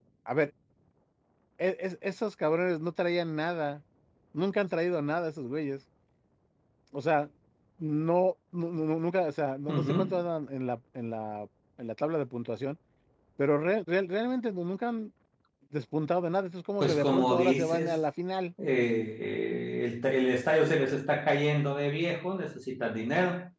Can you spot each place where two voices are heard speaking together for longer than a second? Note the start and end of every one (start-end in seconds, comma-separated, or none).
16.8-18.0